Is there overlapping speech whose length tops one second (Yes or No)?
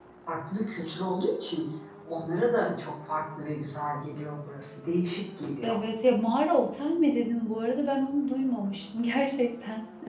No